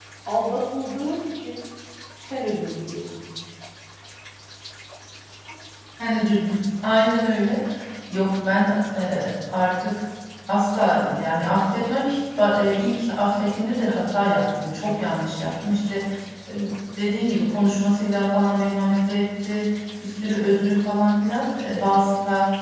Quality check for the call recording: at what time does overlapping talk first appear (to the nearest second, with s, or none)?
none